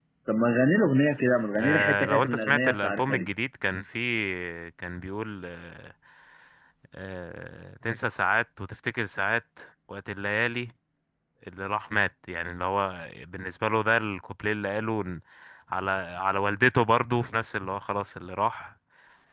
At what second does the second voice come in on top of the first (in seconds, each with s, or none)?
1.6 s